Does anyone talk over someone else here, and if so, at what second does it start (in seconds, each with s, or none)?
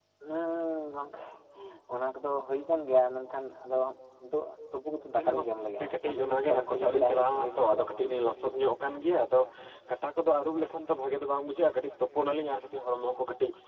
5.2 s